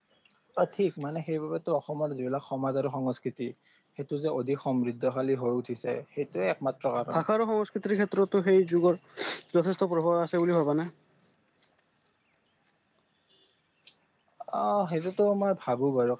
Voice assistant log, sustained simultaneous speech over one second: none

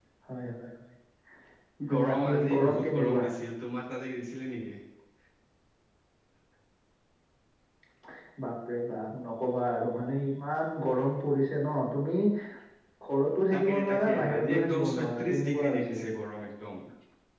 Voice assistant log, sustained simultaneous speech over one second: present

